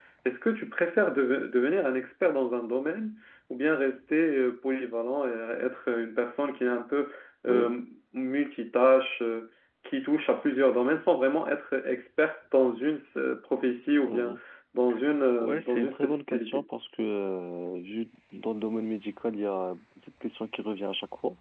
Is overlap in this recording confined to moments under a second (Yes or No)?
No